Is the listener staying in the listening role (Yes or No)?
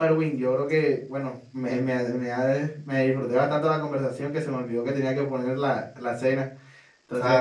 No